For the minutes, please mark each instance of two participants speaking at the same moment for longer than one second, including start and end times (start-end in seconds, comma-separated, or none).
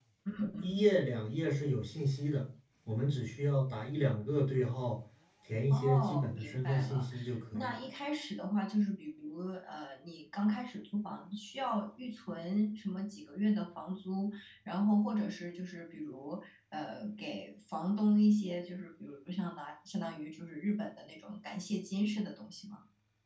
5.7-7.1